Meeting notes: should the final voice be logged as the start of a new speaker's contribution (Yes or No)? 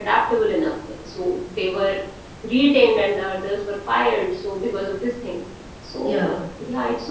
No